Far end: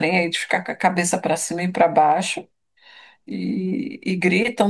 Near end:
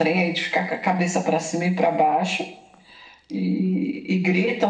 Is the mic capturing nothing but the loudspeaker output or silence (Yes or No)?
Yes